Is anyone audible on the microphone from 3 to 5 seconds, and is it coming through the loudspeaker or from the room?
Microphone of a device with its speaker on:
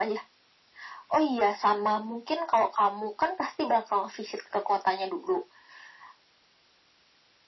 echo only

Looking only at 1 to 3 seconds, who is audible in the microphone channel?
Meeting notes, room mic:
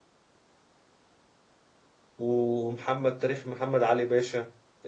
user only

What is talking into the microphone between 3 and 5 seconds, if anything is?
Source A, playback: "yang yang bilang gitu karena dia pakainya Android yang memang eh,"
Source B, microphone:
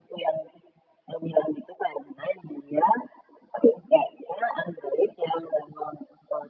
echo only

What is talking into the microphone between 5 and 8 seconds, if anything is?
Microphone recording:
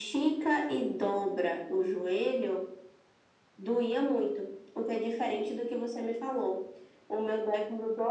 echo only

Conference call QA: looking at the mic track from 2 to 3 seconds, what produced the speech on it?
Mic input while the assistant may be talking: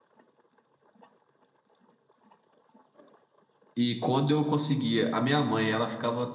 neither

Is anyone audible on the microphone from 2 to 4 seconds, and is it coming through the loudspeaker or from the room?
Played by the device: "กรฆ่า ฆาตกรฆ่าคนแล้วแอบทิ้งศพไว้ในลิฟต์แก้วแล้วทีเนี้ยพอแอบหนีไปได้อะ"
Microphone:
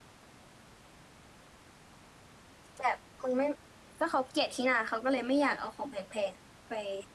user only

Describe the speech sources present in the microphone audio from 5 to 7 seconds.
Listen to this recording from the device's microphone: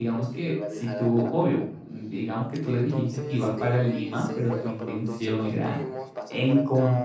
both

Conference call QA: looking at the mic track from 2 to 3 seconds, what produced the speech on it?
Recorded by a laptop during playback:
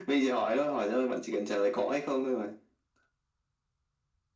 echo only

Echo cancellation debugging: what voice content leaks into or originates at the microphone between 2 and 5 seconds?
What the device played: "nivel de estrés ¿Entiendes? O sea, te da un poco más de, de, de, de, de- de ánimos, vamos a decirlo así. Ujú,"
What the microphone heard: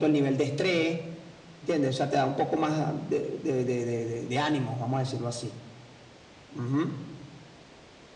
echo only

